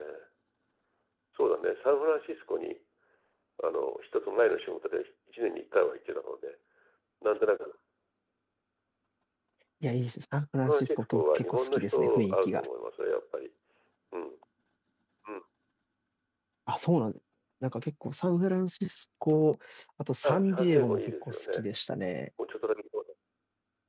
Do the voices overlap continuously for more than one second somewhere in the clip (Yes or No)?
Yes